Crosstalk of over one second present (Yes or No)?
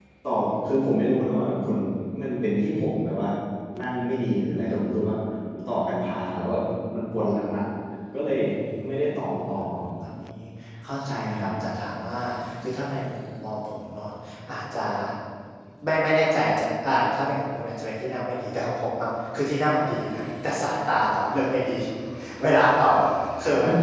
No